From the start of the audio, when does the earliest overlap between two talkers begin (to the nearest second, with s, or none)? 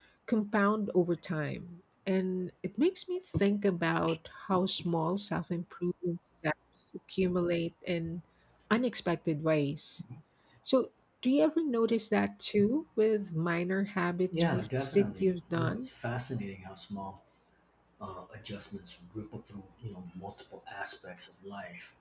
14 s